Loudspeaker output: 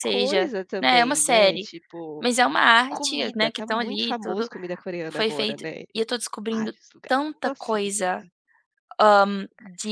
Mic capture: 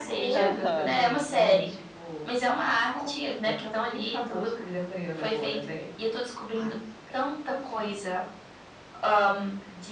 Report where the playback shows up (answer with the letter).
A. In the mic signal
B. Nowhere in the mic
A